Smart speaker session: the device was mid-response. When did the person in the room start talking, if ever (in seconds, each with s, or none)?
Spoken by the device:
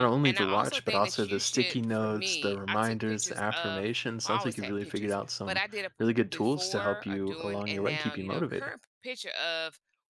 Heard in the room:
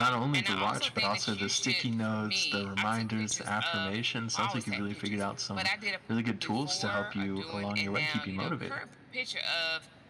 none